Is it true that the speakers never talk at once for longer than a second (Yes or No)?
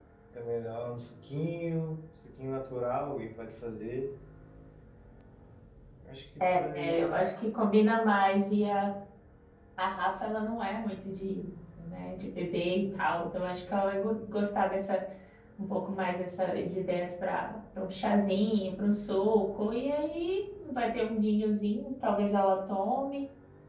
Yes